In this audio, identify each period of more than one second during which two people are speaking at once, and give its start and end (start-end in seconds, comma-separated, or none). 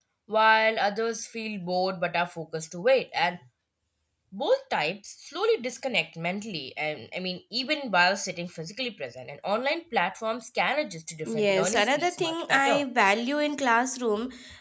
11.3-12.8